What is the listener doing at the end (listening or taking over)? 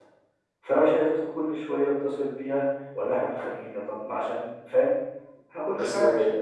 listening